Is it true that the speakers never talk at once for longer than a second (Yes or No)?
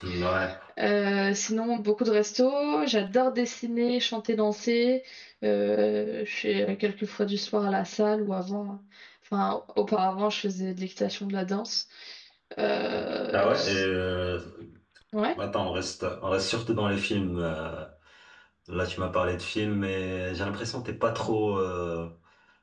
Yes